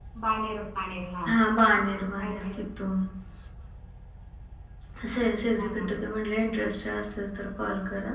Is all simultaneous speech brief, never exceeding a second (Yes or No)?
Yes